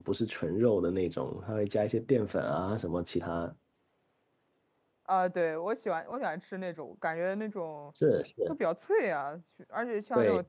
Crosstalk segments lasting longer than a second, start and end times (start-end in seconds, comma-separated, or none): none